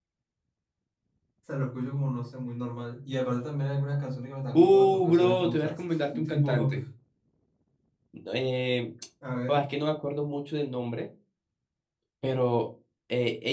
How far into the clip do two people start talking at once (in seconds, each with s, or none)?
4.5 s